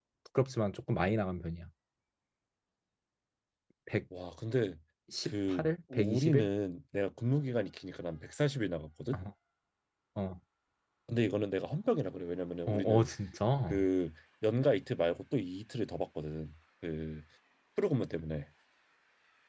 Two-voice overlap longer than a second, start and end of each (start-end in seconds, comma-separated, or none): 5.2-6.5